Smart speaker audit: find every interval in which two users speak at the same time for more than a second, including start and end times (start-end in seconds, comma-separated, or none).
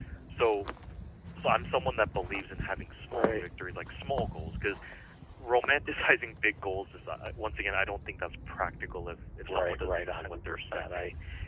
9.5-10.8